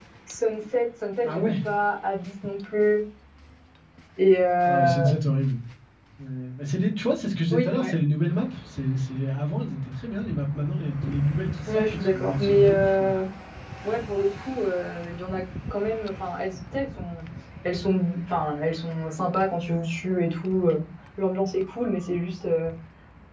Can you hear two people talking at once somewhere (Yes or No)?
Yes